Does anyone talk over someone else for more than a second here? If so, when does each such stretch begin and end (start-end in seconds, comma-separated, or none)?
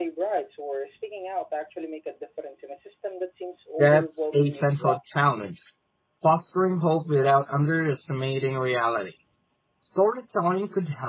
3.8-5.0